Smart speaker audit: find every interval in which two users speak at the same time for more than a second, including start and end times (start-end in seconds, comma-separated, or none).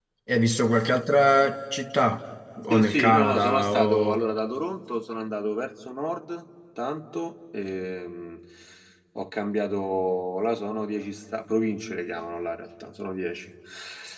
2.7-4.2